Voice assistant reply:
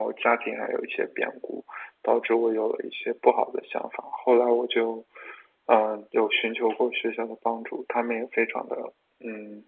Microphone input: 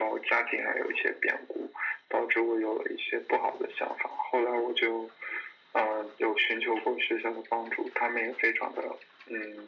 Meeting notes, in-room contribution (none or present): none